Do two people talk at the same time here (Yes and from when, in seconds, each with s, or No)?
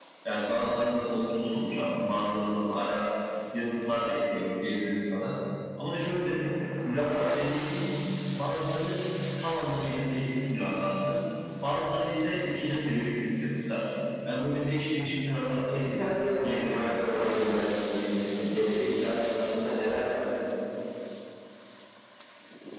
Yes, from 15.7 s